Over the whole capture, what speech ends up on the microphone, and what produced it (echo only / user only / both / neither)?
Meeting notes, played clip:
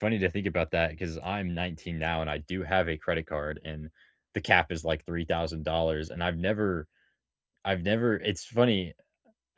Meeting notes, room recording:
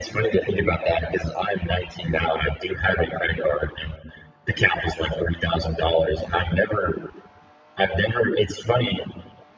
echo only